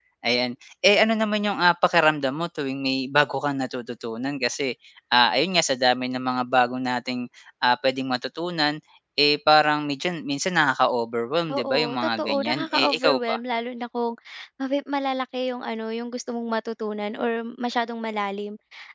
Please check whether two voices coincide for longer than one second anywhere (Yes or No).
Yes